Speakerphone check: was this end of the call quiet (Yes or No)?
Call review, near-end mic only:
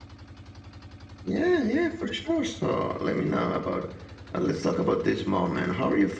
Yes